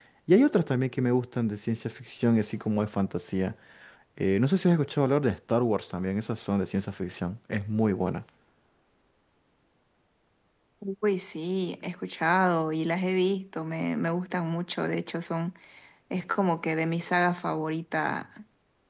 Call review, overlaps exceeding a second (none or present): none